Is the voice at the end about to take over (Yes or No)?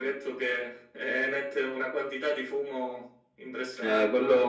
Yes